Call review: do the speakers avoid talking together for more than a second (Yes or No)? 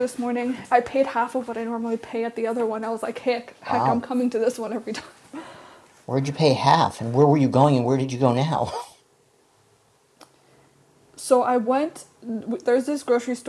Yes